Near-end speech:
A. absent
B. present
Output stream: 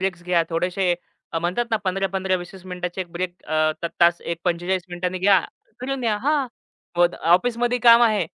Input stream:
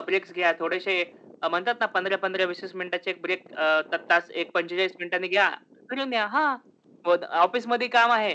A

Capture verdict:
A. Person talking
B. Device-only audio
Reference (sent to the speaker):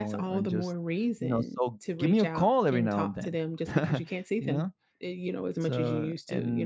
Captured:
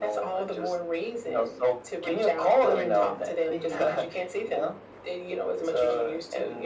A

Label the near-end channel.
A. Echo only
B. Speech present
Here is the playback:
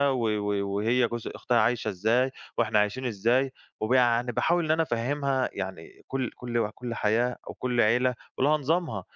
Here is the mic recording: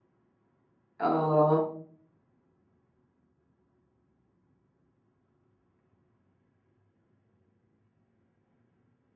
B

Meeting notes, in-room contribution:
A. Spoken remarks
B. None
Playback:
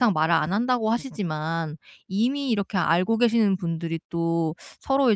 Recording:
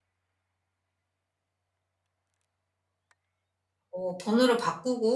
A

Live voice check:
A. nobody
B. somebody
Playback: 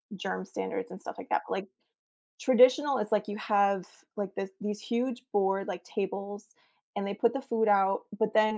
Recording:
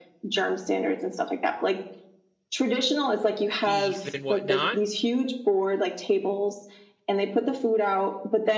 B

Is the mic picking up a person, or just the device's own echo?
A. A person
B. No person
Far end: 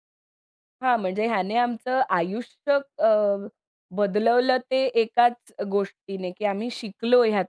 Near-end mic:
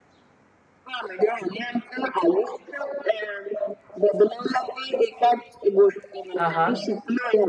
A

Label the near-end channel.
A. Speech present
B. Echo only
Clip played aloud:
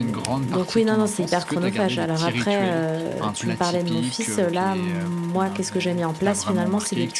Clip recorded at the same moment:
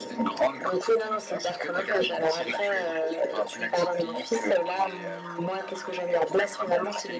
B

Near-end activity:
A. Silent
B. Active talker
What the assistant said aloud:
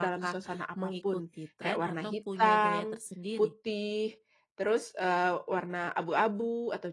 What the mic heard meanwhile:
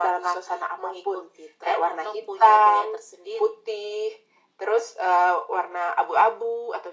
A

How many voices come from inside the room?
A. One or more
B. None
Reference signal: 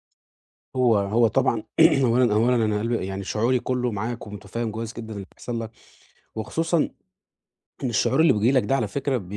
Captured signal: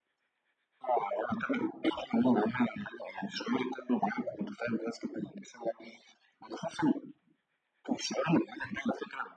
B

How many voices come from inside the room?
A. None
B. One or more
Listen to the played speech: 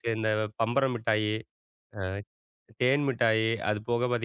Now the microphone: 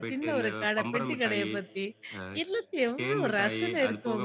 B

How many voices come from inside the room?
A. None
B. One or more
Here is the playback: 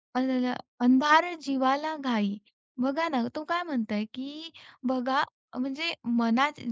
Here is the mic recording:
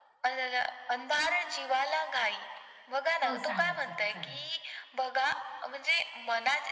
B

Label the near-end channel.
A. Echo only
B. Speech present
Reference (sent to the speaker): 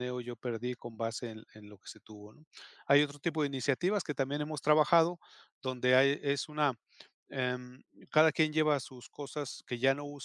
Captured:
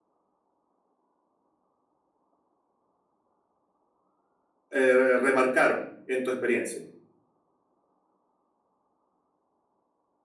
B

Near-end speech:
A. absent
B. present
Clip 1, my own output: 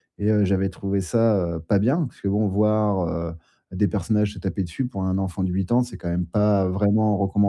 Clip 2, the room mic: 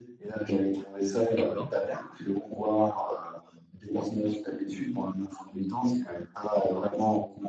B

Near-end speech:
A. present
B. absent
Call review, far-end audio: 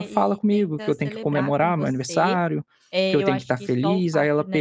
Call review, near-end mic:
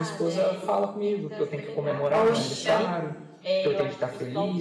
A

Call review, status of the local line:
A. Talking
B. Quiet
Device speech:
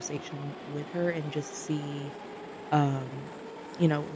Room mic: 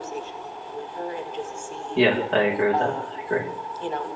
A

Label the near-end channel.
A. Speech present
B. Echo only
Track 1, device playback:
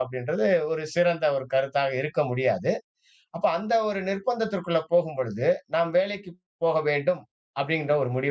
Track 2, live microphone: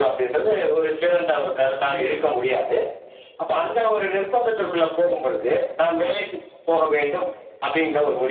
A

